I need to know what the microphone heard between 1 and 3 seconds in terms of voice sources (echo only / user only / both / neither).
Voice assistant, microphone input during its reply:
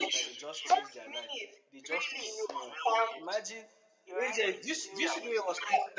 both